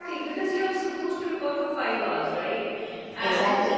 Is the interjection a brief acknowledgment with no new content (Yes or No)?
Yes